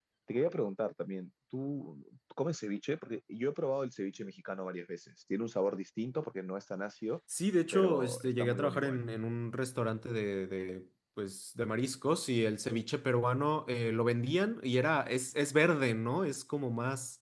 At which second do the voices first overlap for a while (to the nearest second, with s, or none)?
8 s